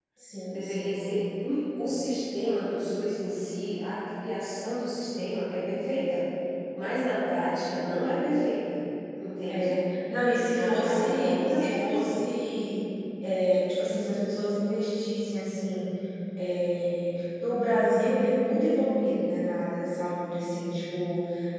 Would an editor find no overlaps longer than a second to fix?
No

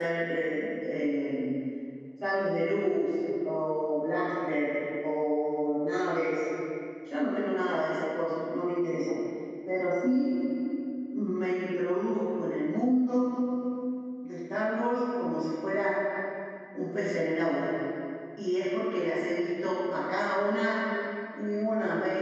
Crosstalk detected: No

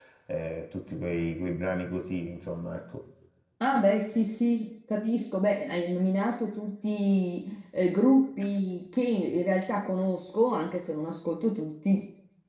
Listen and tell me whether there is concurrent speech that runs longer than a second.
No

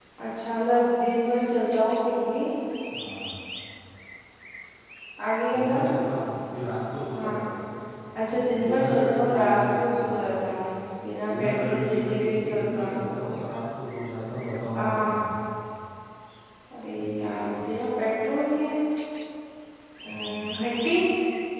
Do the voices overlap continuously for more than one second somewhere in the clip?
Yes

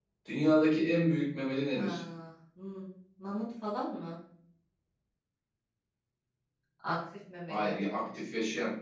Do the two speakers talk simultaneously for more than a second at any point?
No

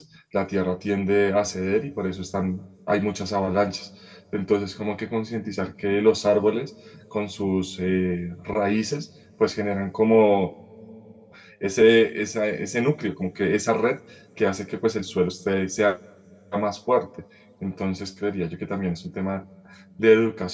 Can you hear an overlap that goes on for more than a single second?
No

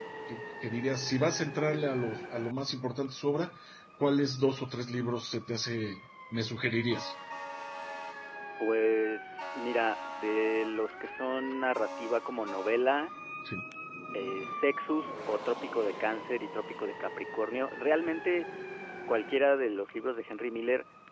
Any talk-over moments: No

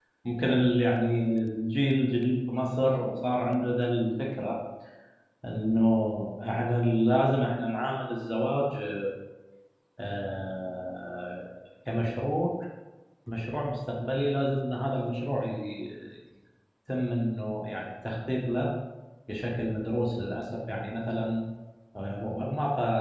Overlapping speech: No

